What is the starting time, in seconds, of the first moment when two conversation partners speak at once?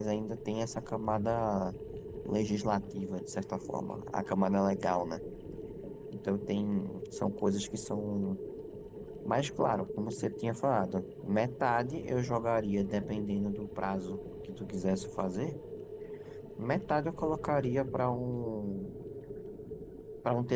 none

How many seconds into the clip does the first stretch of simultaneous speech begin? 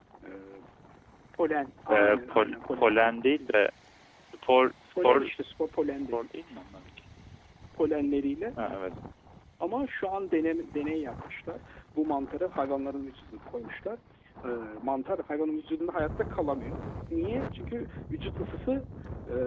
1.9 s

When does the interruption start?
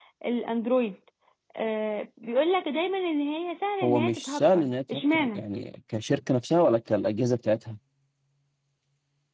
3.8 s

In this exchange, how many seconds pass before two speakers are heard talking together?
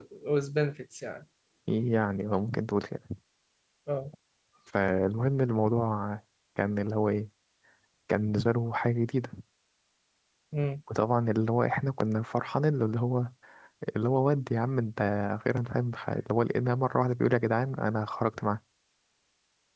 none

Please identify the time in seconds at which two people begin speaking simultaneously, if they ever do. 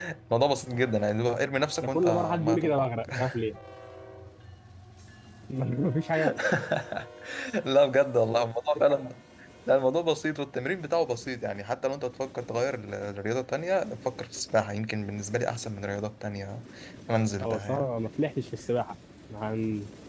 1.8 s

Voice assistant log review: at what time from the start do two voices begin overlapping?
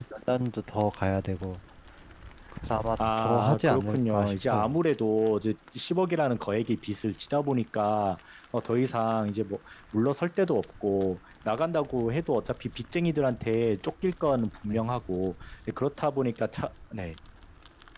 3.2 s

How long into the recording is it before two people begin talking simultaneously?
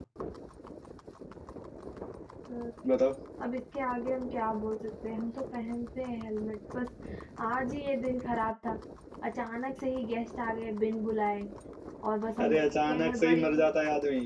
12.4 s

